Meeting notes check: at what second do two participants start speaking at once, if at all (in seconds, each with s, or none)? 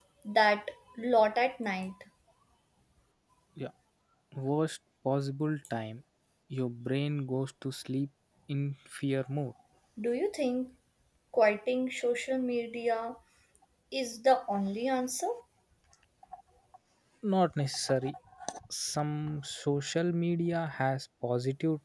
none